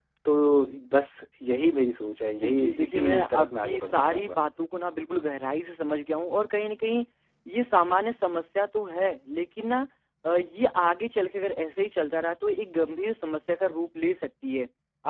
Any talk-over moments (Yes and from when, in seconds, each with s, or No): Yes, from 2.4 s